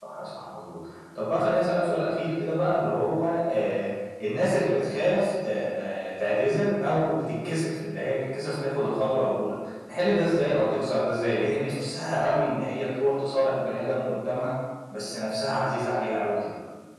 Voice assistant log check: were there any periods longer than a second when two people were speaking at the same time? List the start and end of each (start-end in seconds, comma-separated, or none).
none